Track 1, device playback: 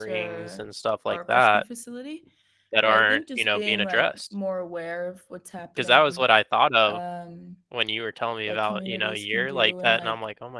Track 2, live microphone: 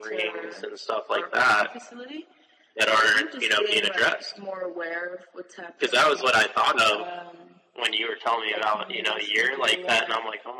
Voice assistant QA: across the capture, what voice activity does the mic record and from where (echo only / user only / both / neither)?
echo only